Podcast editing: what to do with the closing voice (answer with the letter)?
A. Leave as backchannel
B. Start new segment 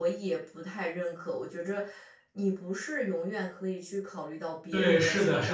B